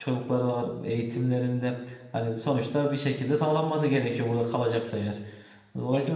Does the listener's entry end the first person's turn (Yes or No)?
No